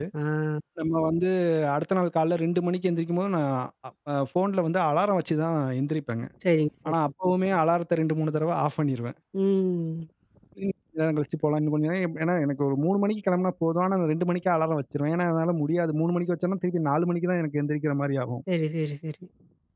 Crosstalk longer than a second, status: none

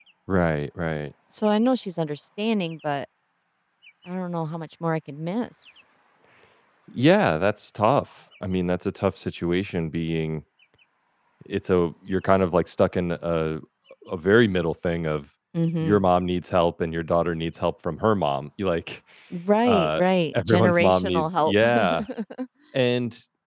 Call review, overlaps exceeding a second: present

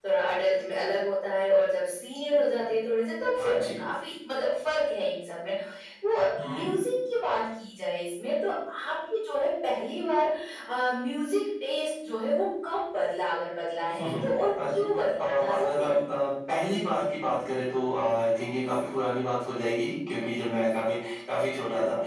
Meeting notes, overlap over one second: present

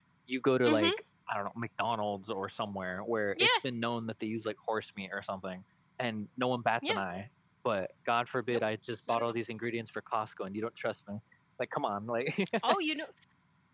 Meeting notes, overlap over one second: none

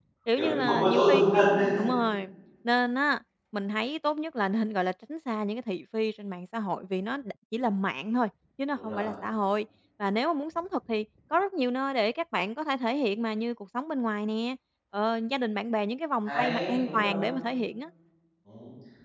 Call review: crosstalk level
present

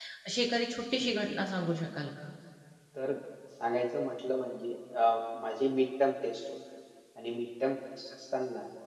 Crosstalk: none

